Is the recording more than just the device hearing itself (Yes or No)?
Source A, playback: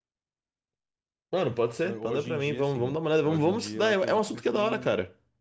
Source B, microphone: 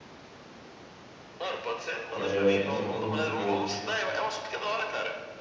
Yes